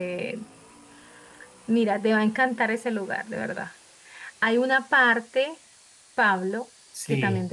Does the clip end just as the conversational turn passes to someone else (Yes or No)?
No